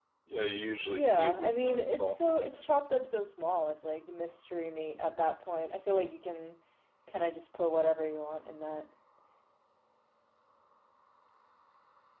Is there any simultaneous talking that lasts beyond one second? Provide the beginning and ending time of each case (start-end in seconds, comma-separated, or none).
0.9-2.7